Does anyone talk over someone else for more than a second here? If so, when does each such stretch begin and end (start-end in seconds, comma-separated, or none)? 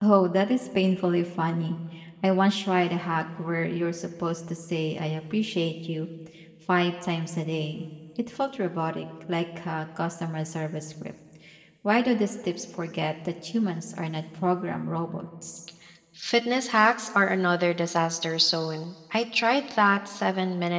none